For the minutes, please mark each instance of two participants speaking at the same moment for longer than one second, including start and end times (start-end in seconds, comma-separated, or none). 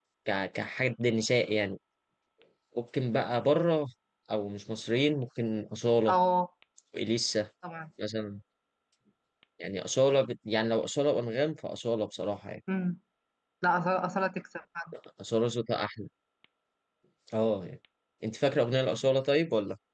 none